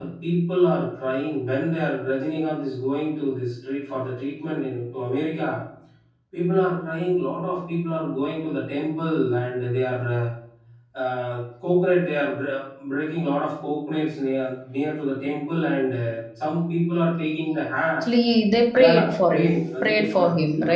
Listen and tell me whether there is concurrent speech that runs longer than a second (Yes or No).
Yes